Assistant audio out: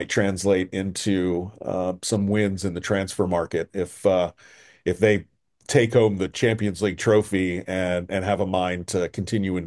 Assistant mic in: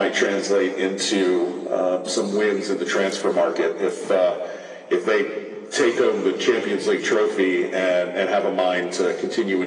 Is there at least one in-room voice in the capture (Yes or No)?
No